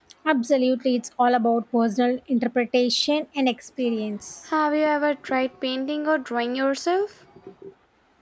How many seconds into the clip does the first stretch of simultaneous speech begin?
none

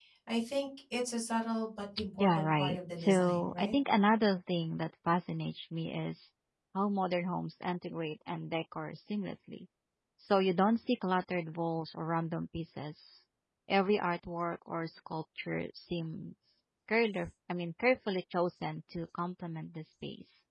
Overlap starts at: 2.0 s

